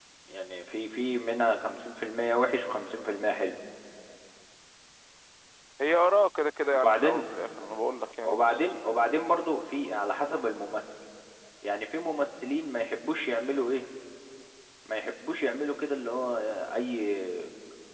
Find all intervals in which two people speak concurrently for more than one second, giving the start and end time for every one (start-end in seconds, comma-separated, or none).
none